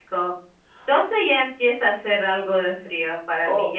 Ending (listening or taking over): taking over